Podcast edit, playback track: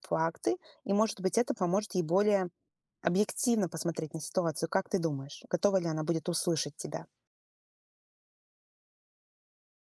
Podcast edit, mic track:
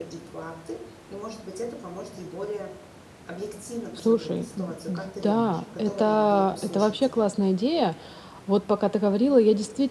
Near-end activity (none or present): present